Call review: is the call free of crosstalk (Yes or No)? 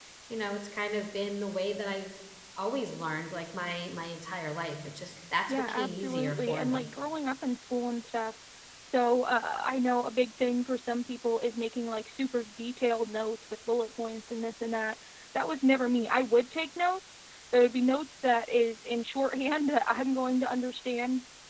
No